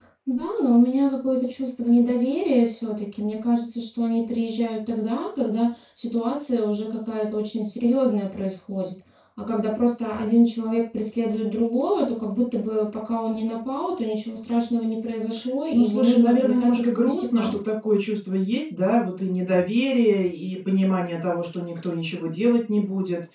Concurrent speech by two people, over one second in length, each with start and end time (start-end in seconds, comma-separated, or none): 15.7-17.6